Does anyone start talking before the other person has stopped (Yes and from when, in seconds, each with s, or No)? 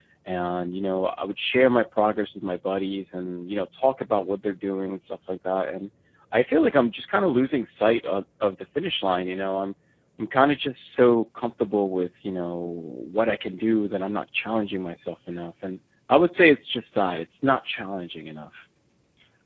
No